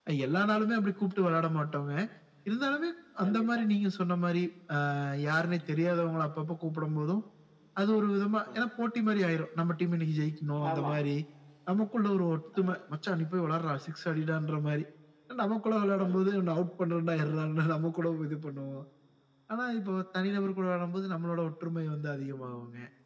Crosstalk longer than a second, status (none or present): none